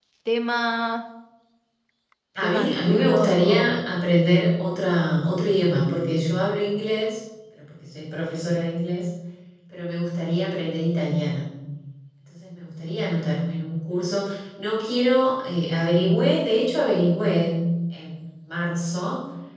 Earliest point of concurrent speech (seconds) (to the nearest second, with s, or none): 2 s